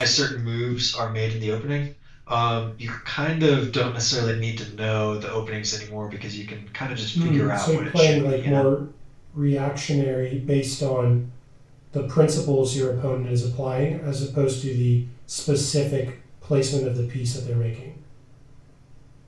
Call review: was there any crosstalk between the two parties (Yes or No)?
Yes